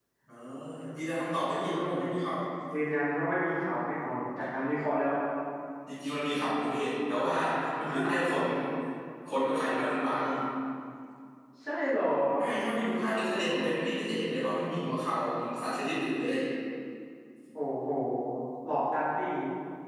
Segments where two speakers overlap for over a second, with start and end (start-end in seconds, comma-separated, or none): none